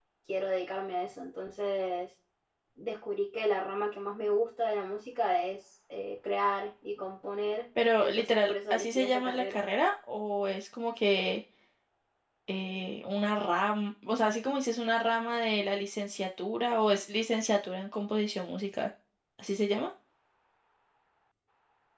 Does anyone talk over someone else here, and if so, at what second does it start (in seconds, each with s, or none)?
8.0 s